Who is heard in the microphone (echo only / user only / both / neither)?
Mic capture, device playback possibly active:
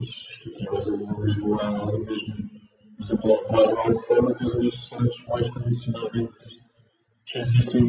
echo only